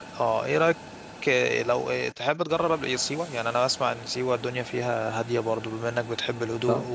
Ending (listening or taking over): listening